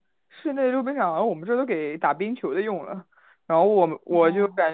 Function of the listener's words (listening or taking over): listening